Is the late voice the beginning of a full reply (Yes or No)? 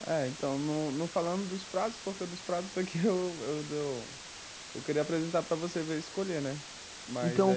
Yes